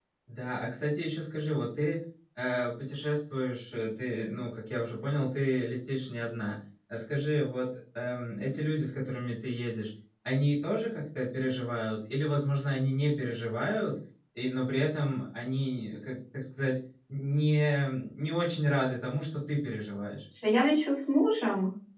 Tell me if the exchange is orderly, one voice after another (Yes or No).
Yes